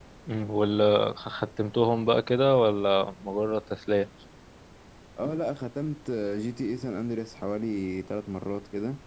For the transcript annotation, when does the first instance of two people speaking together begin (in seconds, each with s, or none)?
none